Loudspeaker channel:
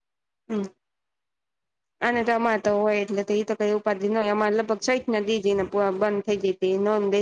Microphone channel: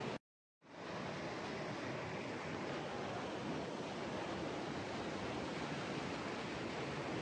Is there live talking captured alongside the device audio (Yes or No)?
No